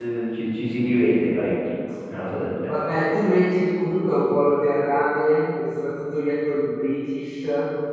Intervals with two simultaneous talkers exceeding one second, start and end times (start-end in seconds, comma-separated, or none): none